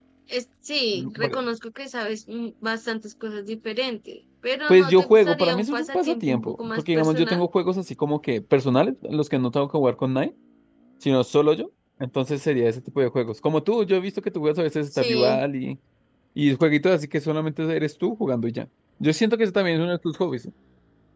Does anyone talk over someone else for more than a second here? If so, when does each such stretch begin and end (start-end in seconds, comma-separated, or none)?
4.7-7.5